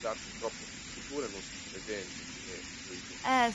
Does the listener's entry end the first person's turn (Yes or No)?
Yes